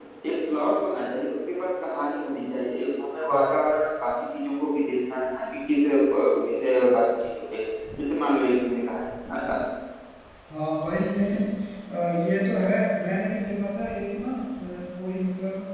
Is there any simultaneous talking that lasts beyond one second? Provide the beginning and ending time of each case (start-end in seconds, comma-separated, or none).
none